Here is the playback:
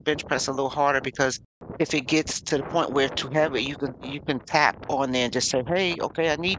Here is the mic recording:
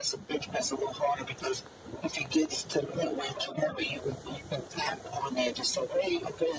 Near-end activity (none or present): none